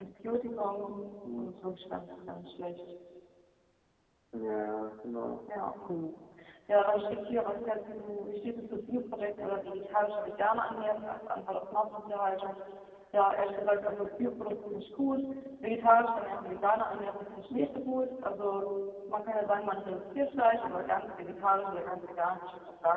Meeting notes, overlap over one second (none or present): none